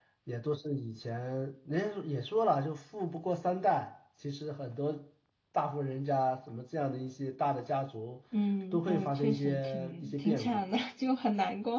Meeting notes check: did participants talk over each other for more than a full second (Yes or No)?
Yes